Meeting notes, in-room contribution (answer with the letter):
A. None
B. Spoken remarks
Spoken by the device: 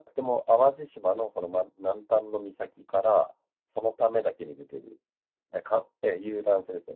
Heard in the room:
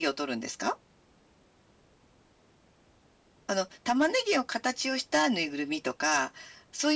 B